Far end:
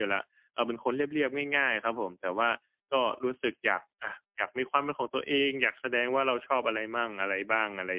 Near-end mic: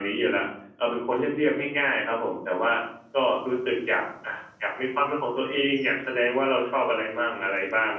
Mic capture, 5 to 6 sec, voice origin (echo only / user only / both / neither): echo only